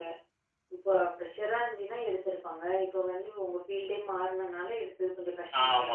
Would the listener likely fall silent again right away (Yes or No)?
No